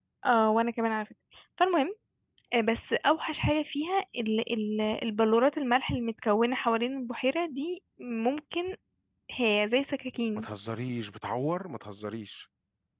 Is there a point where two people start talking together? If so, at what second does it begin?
none

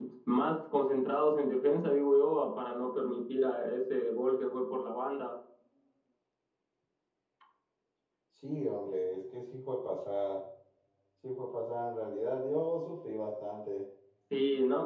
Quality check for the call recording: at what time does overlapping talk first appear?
none

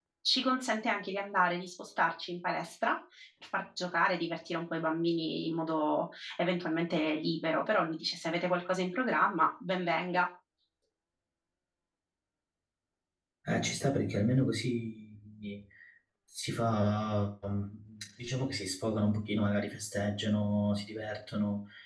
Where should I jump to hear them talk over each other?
none

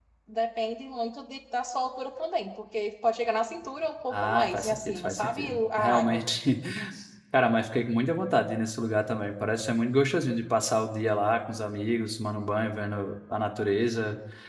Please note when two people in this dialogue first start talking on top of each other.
4 s

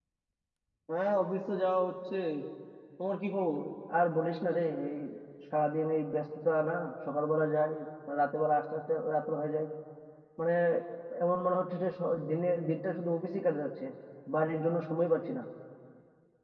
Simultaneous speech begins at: none

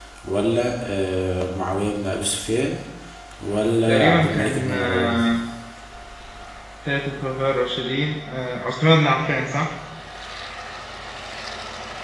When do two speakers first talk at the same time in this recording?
4 s

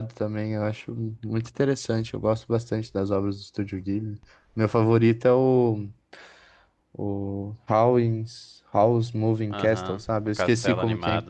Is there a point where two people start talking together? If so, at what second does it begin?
10 s

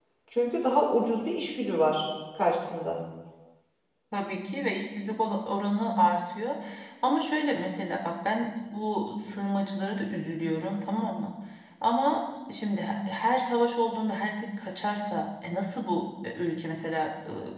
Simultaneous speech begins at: none

